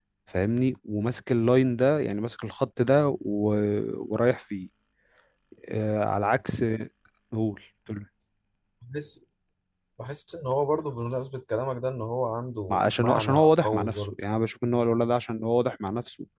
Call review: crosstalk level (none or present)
present